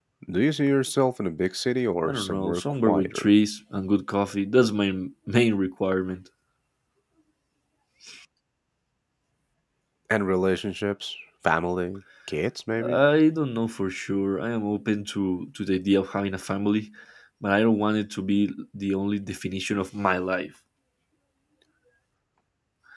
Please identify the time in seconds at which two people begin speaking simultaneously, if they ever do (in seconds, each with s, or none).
2.0 s